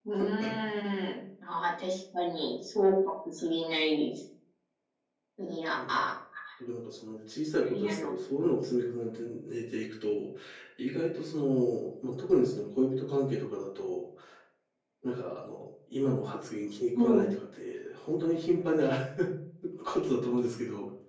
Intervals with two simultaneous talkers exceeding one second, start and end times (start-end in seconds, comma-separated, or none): none